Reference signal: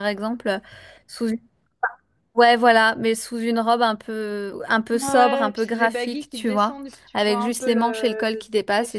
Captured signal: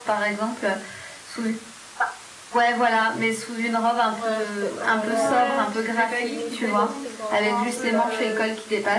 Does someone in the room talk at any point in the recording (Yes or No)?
Yes